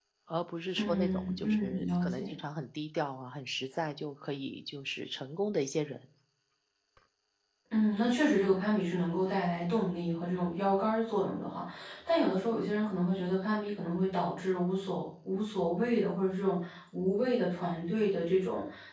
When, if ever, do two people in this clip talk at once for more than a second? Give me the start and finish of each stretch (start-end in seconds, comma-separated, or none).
0.8-2.3